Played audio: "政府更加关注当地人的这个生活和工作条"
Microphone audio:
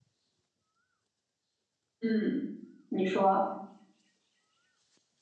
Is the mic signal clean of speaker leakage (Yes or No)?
Yes